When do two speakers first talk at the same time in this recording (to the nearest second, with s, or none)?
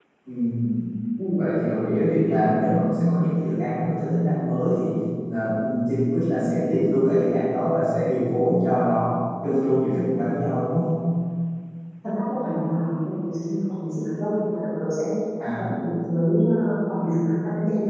none